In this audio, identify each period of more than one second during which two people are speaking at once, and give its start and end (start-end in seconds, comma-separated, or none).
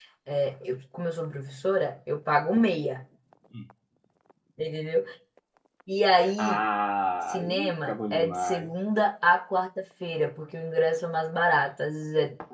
7.3-8.7